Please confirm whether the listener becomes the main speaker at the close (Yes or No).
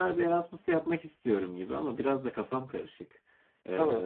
No